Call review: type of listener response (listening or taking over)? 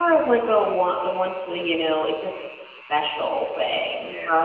taking over